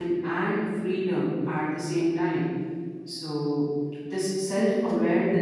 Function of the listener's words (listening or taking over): listening